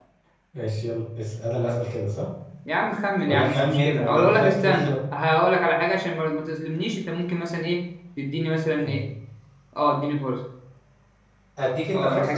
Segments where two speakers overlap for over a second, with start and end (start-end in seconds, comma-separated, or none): 3.3-5.0